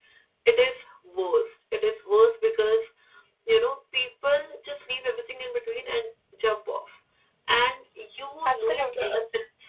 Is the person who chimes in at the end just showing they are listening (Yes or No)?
Yes